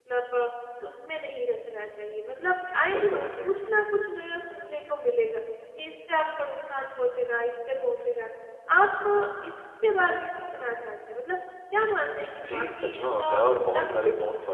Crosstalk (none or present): present